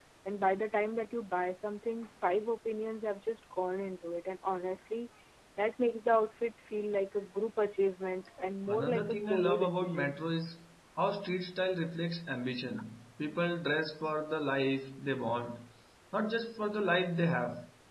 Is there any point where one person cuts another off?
Yes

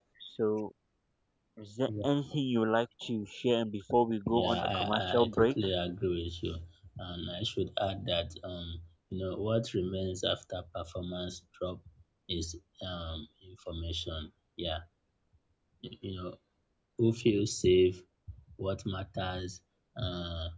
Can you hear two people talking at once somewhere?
Yes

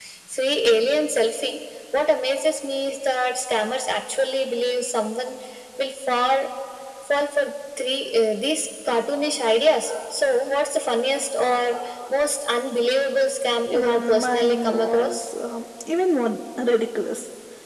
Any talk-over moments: Yes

